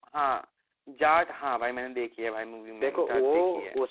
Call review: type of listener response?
taking over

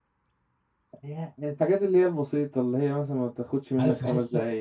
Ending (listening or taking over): taking over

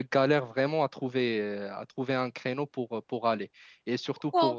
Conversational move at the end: listening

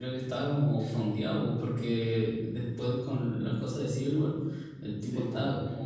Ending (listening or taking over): listening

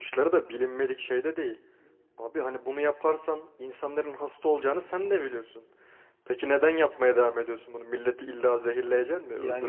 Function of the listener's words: taking over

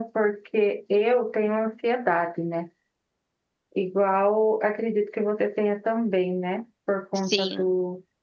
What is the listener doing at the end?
listening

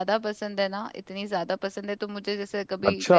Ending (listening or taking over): listening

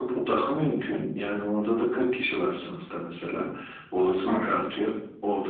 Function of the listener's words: listening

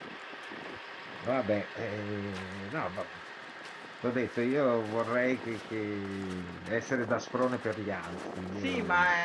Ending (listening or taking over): taking over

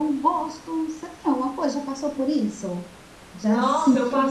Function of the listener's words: taking over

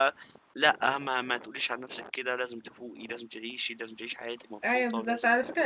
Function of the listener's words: taking over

